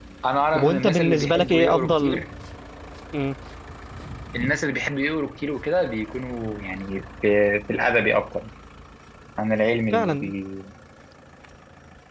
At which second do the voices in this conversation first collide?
1 s

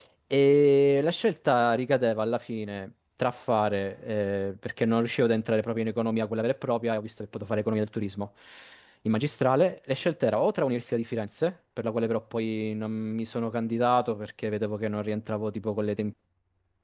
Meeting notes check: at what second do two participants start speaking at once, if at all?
none

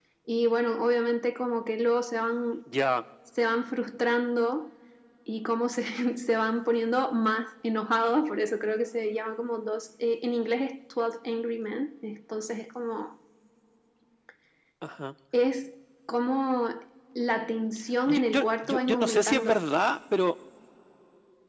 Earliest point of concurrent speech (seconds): 18 s

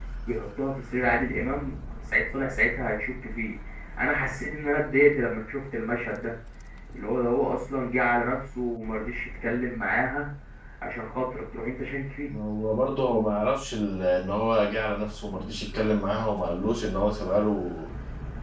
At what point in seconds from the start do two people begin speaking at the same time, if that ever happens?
none

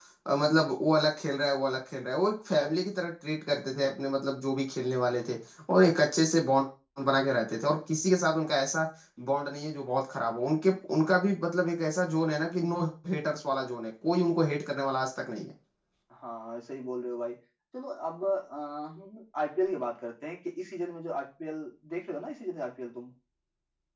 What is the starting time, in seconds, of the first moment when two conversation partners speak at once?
none

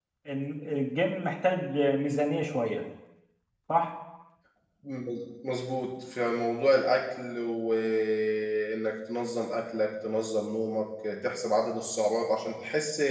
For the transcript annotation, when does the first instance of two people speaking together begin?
none

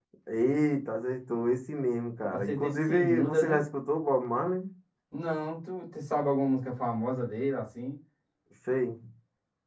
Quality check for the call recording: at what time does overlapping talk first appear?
2 s

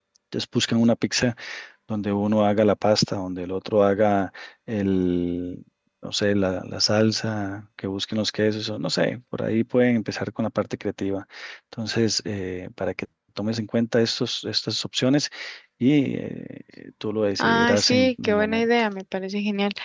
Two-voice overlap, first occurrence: 17 s

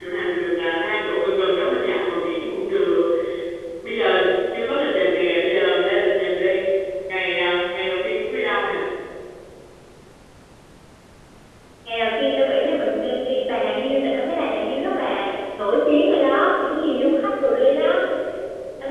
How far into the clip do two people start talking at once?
none

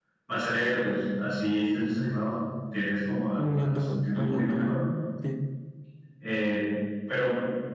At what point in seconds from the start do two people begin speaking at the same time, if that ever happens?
3 s

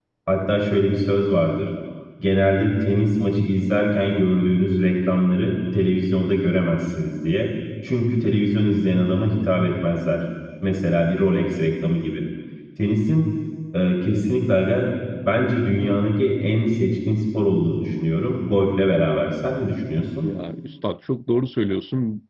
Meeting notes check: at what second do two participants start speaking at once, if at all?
none

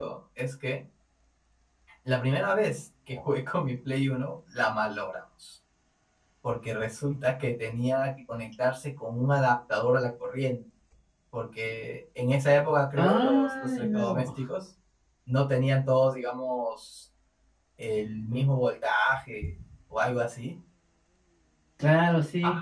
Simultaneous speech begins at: 13 s

